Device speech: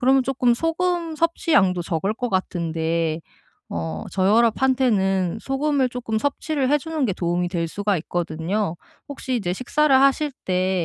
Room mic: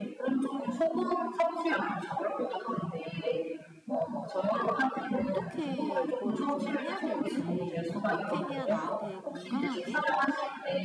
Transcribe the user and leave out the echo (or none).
어떻게 이거를 좀 해야 될지 어떻게 해야 나한테 건강하게